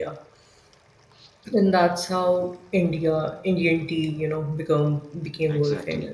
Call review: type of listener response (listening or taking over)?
taking over